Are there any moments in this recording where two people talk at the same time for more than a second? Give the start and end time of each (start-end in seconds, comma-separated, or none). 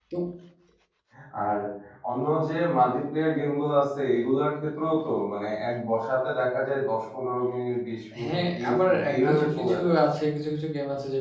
8.2-9.9